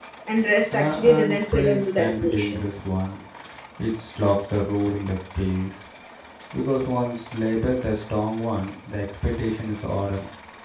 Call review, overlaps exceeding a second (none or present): present